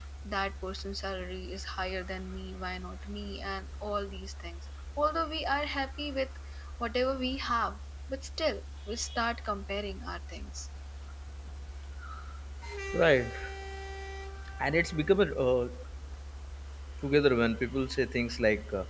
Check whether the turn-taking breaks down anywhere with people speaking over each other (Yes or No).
No